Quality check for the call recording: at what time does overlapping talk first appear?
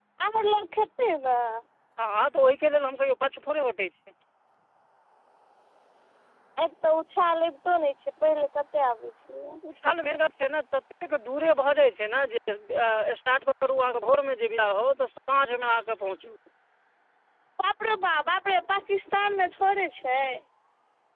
none

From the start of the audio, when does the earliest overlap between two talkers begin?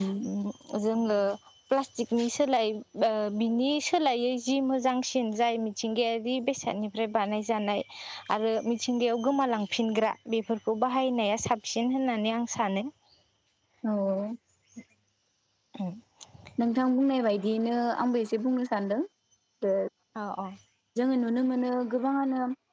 none

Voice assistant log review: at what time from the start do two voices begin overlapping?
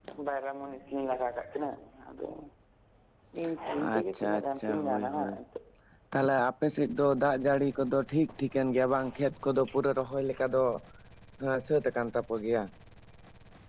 4.0 s

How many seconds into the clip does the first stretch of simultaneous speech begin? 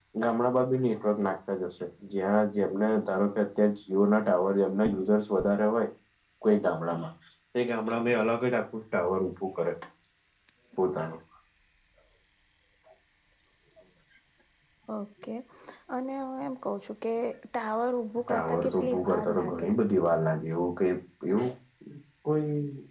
18.3 s

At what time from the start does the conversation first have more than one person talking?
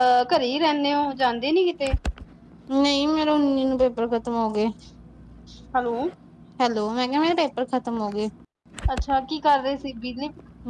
none

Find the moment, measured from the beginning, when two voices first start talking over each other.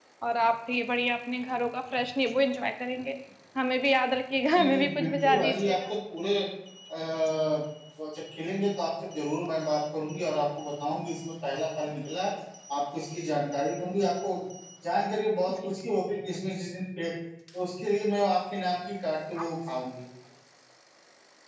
4.5 s

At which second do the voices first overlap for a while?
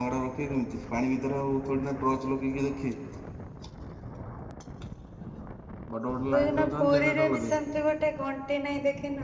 6.3 s

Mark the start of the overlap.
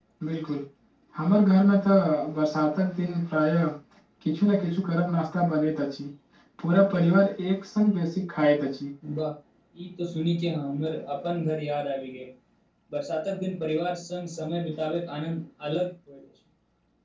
none

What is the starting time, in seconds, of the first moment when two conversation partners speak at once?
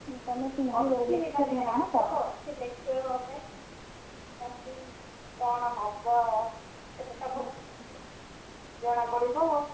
0.8 s

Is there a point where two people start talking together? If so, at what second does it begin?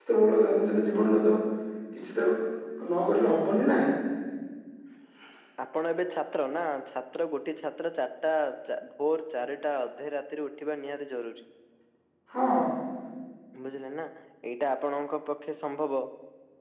none

